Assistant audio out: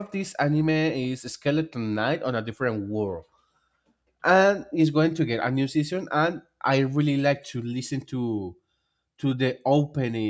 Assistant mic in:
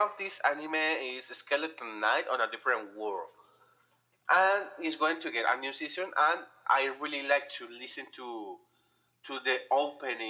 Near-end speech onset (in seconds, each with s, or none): none